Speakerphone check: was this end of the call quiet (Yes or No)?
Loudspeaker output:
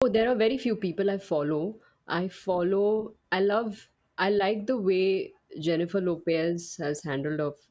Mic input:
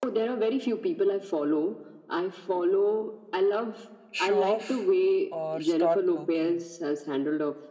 No